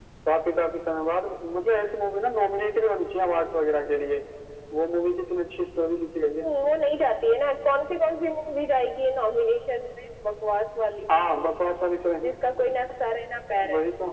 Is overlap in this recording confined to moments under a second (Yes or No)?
Yes